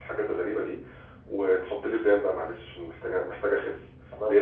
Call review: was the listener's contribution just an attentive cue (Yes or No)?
Yes